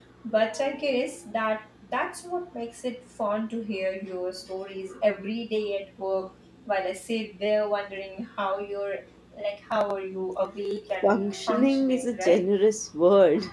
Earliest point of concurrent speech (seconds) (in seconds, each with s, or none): 11.0 s